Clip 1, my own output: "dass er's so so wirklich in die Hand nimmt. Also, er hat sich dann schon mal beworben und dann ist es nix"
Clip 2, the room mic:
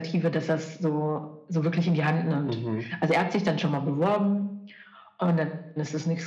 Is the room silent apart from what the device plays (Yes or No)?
No